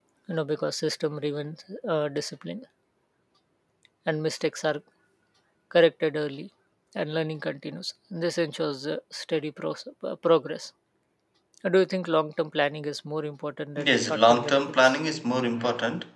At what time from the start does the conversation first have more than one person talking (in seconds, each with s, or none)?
13.8 s